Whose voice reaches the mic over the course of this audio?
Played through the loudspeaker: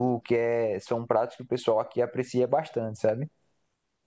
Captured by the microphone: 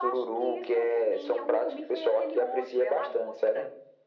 both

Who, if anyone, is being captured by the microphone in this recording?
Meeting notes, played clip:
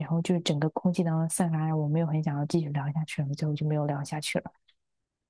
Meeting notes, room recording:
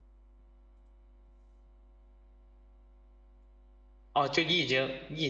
user only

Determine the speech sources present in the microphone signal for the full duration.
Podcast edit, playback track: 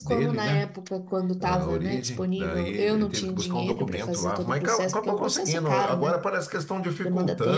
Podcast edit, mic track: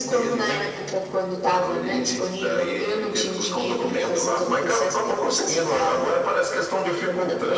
echo only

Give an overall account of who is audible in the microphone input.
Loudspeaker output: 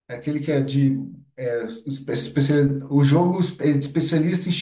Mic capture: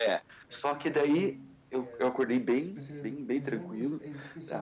both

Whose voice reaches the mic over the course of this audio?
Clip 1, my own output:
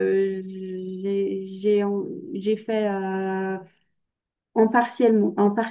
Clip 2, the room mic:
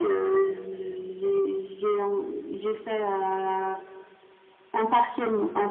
echo only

